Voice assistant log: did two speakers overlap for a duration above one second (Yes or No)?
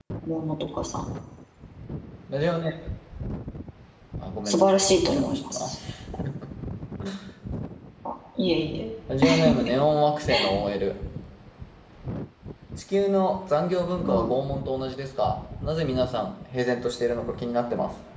Yes